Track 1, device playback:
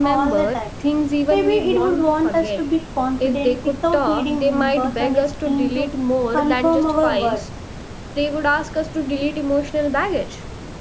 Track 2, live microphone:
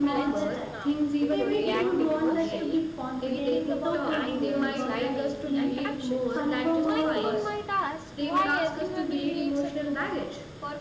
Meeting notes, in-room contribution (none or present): present